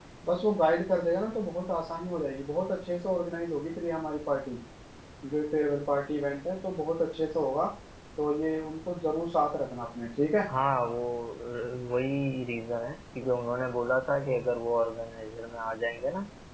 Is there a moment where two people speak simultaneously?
No

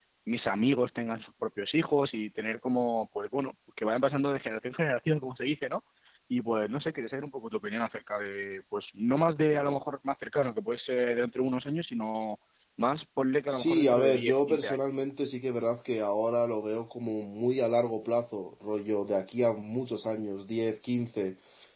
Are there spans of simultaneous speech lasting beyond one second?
Yes, from 13.5 s

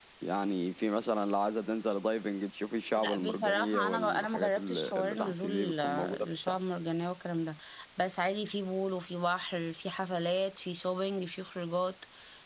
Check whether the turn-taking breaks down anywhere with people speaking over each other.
Yes, from 3.0 s

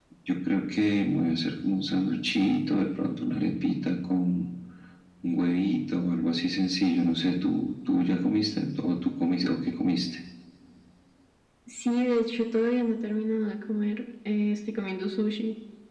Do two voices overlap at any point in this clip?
No

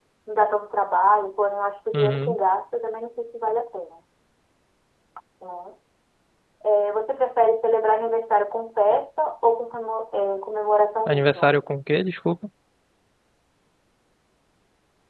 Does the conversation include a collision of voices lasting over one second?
No

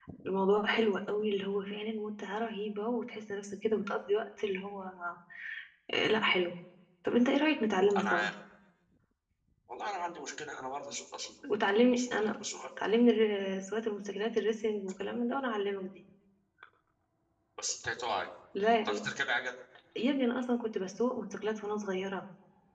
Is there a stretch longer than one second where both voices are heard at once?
No

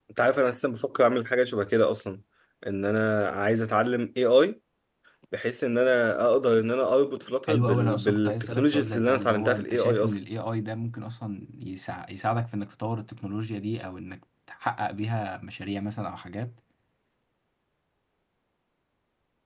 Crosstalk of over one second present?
Yes, from 7.5 s

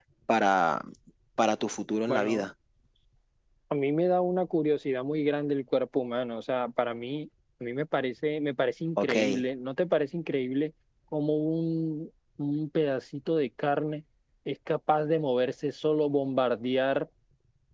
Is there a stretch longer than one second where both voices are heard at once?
No

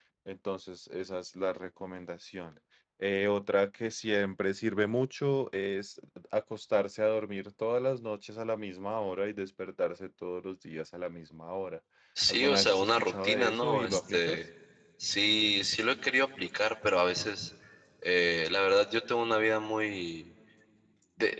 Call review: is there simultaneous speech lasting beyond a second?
Yes, from 12.3 s

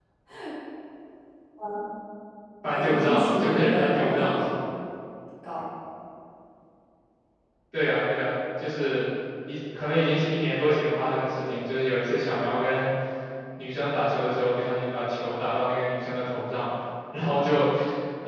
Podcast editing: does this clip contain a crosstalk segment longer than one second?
Yes, from 2.7 s

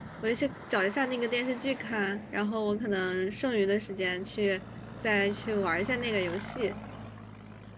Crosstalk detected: No

